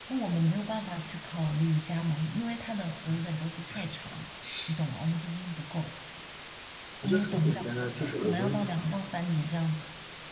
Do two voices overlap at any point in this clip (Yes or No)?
Yes